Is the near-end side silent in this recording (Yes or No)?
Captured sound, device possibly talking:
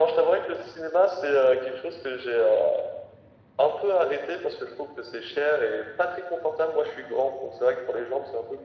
Yes